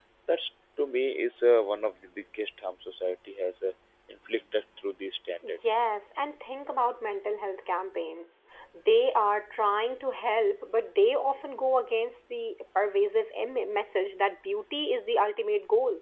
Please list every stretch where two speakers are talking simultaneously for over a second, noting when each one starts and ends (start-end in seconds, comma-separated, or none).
none